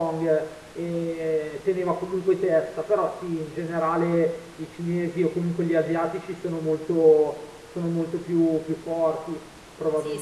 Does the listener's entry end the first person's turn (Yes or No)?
Yes